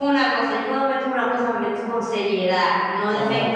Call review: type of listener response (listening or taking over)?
taking over